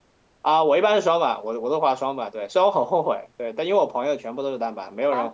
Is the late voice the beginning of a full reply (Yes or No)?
No